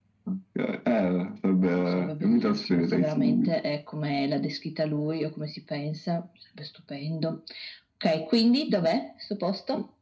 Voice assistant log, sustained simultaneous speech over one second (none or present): present